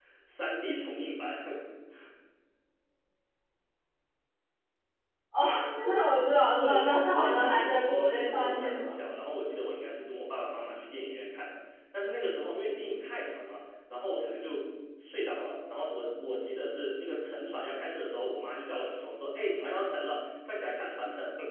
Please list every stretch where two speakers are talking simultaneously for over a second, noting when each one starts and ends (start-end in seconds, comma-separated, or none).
6.6-8.9